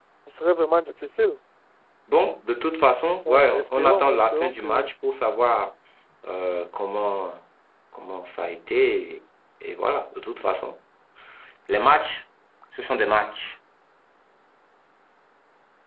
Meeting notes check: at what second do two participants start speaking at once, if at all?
3.2 s

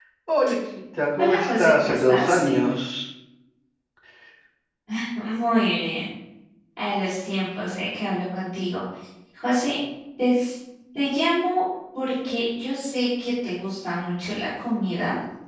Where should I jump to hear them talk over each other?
1.2 s

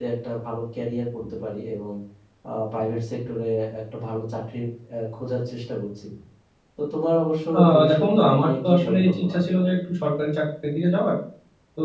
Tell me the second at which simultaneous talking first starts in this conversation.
7.5 s

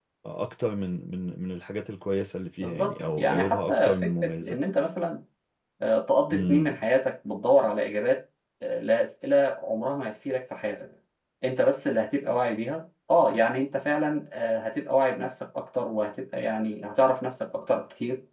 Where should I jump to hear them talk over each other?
2.6 s

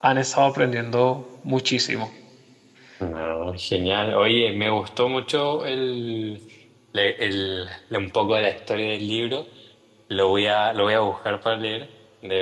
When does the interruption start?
none

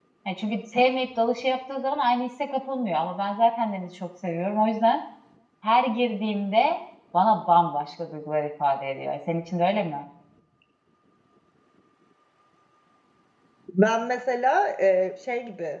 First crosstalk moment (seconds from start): none

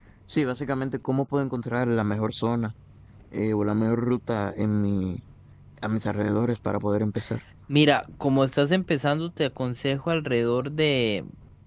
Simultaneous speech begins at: none

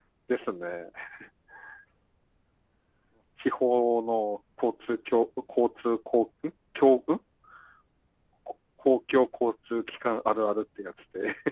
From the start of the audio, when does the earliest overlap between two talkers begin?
none

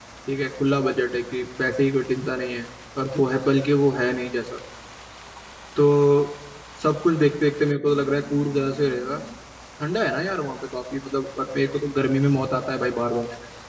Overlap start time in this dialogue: none

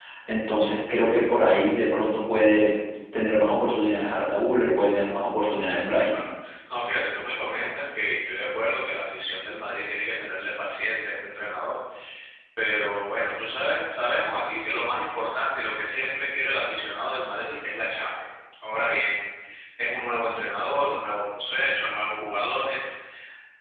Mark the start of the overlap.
none

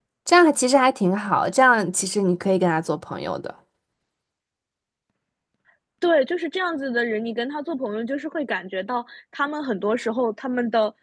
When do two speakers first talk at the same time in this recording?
none

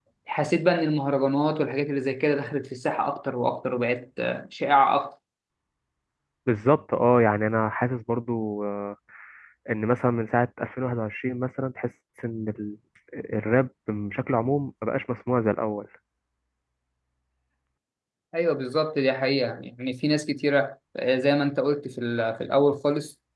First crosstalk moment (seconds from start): none

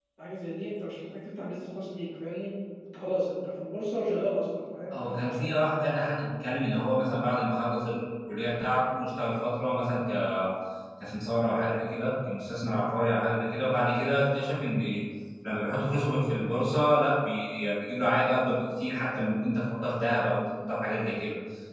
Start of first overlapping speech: 4.9 s

